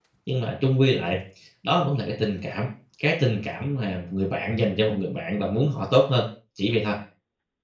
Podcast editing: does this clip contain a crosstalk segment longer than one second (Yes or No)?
No